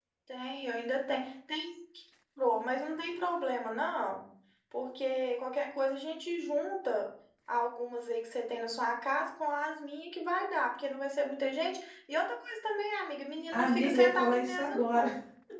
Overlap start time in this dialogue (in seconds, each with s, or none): 13.5 s